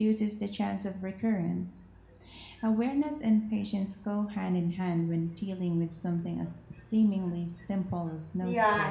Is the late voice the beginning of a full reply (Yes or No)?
Yes